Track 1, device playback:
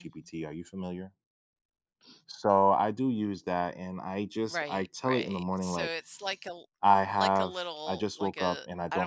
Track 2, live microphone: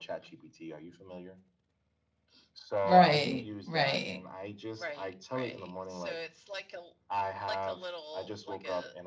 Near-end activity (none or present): present